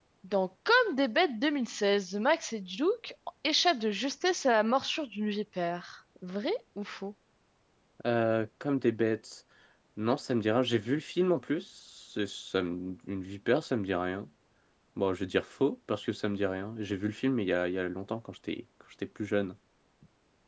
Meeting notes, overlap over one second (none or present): none